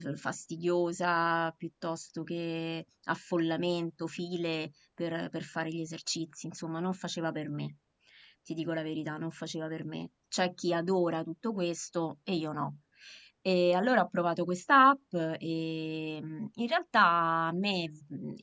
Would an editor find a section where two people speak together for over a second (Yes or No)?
No